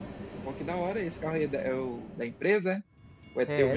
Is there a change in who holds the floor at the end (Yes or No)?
Yes